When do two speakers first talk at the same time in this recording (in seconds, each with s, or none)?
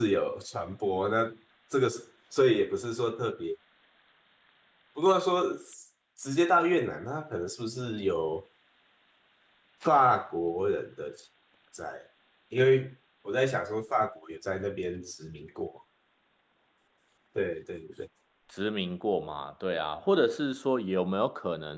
none